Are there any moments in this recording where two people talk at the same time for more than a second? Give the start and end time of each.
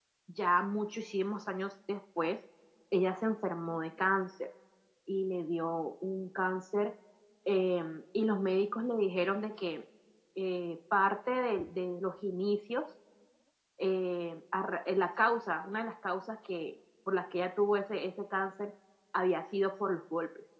none

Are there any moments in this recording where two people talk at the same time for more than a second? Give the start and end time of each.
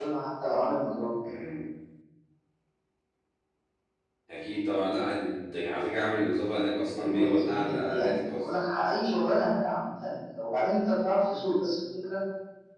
7.0-8.5

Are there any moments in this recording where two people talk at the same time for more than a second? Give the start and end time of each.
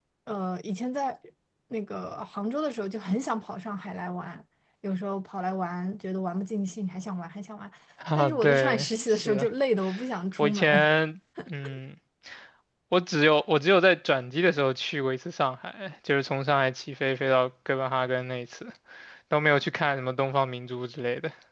8.2-9.5

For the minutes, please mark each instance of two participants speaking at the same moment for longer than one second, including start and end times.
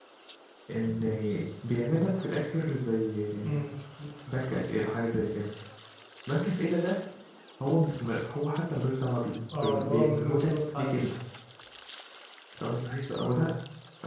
9.6-10.9

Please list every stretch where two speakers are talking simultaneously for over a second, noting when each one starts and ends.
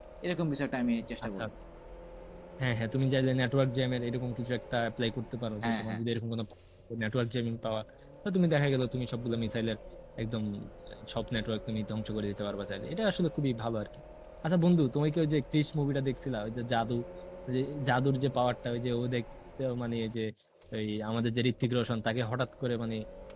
none

